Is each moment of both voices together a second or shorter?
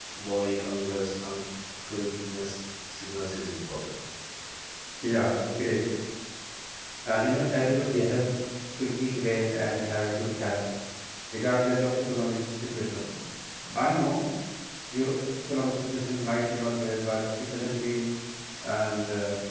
Yes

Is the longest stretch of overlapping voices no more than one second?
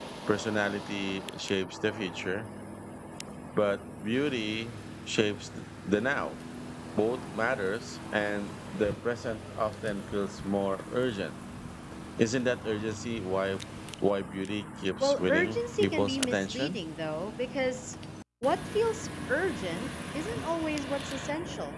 No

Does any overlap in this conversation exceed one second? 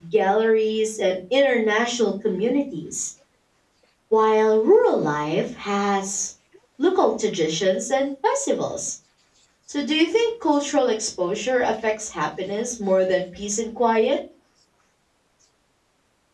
No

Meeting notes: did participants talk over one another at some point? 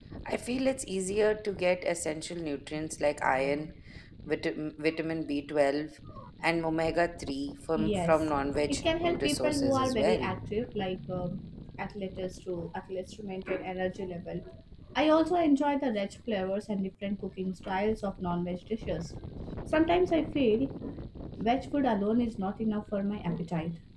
Yes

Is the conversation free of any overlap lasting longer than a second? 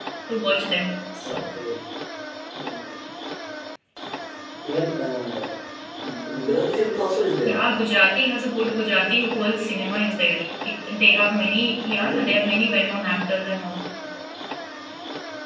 Yes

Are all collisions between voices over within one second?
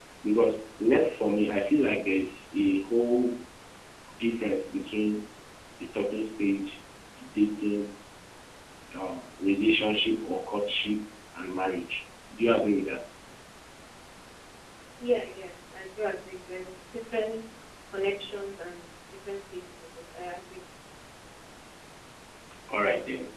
Yes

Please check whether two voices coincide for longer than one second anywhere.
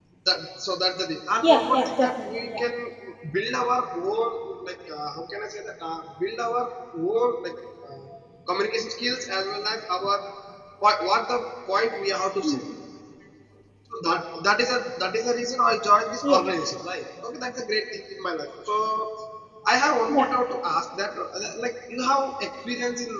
Yes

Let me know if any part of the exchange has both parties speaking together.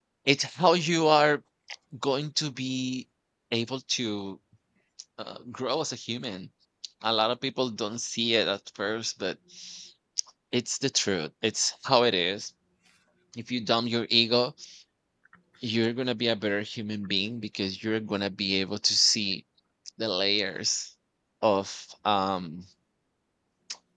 No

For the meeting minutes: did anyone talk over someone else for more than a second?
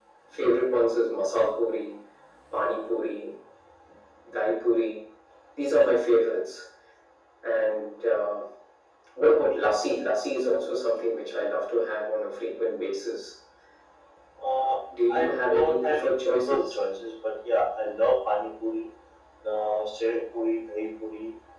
Yes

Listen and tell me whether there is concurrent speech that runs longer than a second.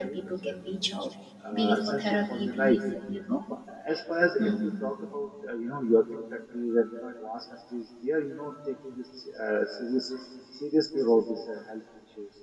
Yes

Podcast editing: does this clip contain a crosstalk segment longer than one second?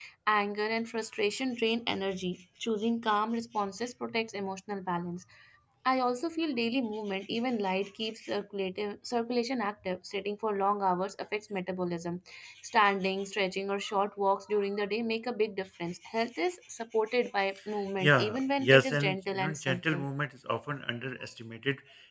Yes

